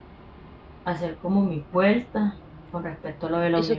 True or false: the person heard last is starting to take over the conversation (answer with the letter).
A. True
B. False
A